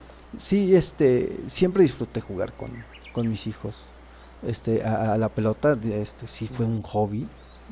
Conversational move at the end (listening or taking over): listening